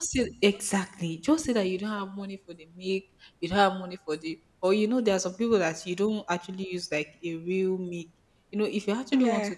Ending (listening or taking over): listening